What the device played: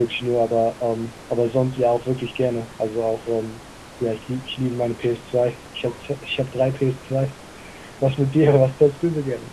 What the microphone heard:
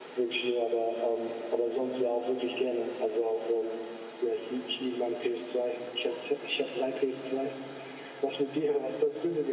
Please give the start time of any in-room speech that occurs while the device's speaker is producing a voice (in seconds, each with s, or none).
none